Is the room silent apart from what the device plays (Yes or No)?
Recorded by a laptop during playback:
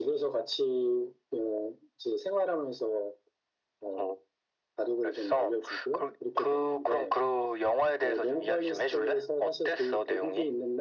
Yes